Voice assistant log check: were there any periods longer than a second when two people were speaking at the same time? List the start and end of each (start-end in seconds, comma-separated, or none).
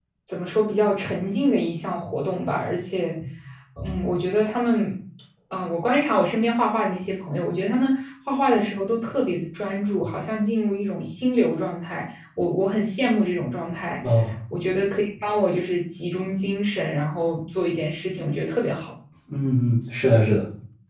none